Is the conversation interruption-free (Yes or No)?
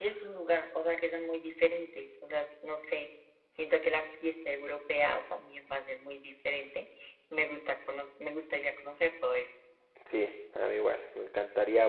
Yes